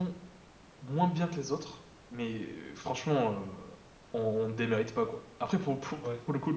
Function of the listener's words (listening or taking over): listening